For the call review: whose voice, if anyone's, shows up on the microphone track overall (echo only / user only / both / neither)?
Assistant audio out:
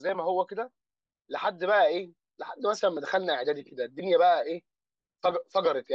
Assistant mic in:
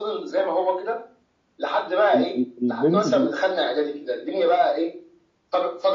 both